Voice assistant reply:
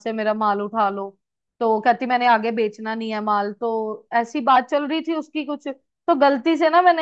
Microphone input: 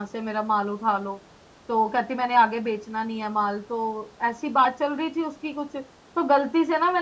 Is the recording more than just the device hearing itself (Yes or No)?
No